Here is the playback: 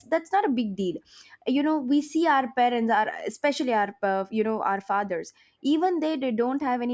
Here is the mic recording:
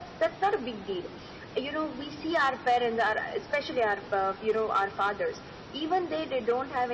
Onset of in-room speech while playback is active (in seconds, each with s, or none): none